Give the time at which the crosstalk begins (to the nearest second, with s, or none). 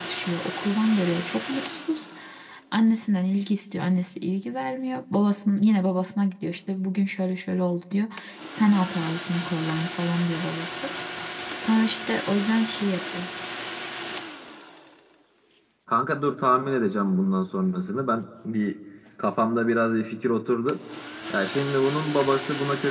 none